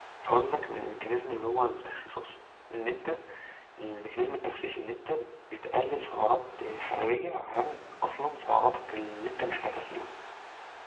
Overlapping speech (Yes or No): No